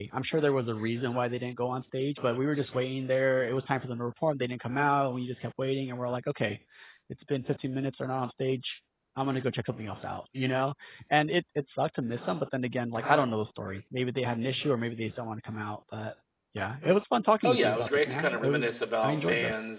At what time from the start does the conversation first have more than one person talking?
17 s

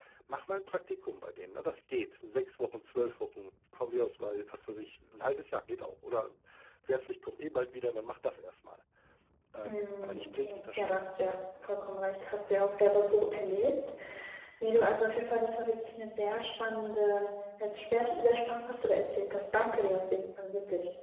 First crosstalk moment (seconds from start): 10 s

